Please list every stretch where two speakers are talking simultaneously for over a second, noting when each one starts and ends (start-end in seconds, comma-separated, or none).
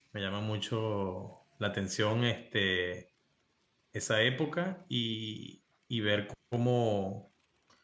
none